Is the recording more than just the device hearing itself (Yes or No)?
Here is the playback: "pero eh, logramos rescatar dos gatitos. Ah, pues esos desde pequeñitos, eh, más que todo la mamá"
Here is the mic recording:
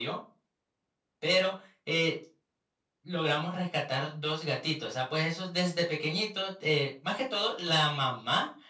No